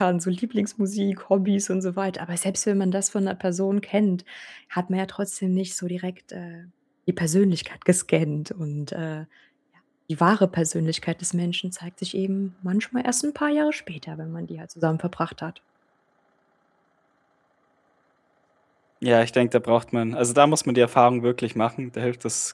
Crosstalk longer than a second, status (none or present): none